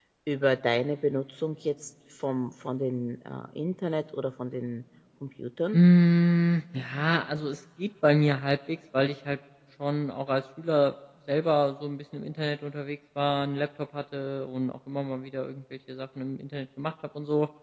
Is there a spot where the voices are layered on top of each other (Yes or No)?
No